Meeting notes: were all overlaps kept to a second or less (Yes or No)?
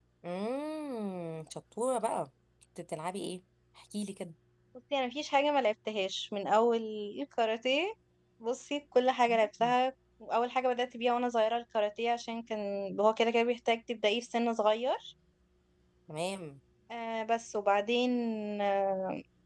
Yes